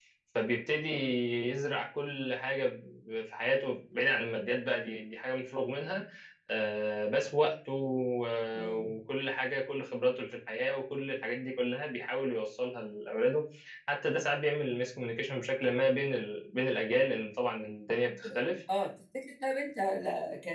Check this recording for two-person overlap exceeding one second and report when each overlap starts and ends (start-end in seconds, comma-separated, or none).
none